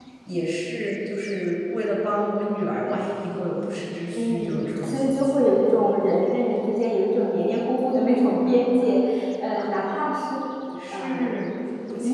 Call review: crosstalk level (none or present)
present